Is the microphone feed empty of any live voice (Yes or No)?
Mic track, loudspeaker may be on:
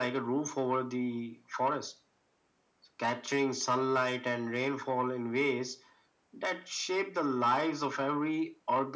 Yes